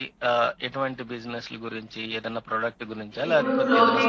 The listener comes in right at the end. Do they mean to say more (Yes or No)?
Yes